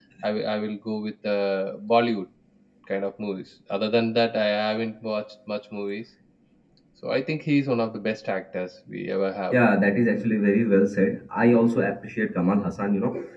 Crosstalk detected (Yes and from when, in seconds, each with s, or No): No